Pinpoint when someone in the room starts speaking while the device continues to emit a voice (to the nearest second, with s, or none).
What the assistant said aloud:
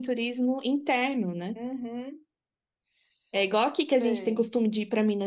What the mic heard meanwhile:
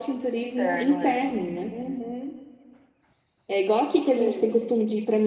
0 s